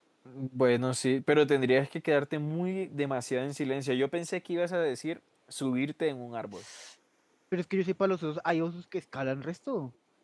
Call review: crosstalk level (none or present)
none